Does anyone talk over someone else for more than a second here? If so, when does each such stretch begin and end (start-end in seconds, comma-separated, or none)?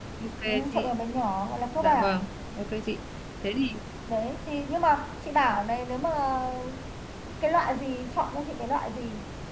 none